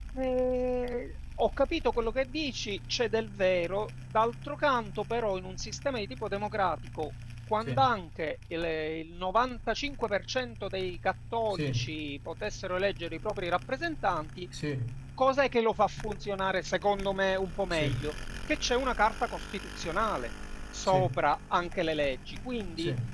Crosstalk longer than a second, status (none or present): none